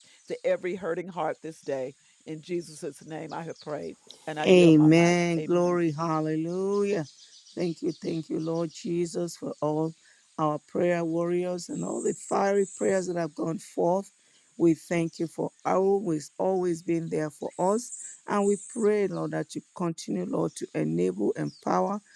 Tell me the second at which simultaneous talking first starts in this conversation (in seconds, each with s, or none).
4.4 s